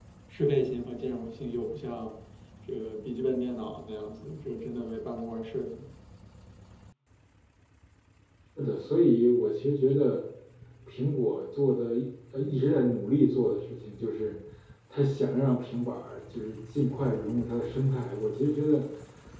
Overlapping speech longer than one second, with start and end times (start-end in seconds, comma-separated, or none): none